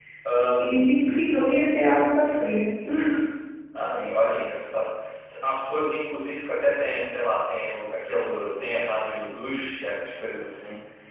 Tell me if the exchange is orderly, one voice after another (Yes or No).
Yes